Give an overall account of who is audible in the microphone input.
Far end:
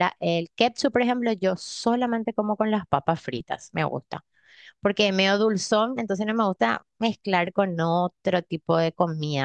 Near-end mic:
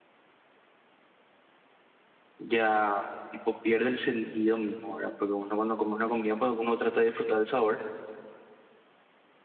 user only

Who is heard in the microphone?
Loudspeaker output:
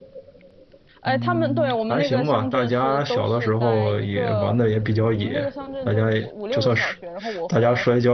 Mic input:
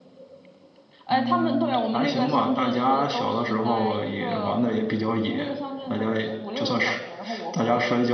echo only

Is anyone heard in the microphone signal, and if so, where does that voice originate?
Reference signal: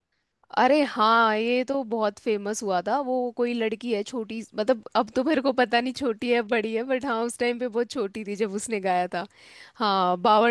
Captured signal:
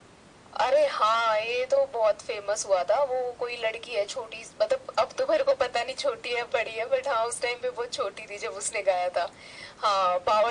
echo only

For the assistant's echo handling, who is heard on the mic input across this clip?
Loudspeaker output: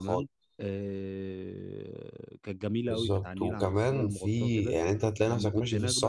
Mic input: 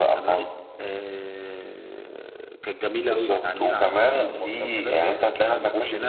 echo only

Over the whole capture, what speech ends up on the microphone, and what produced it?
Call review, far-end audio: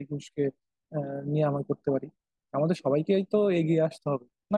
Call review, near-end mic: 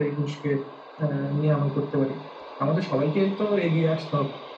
echo only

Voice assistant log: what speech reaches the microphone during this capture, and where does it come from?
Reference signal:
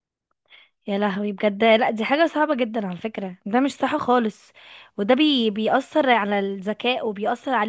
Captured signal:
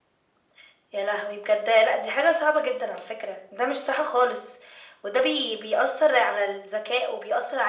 echo only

